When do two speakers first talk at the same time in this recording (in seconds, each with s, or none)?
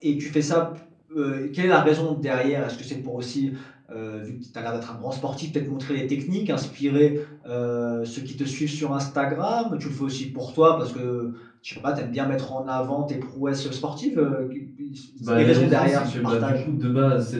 15.3 s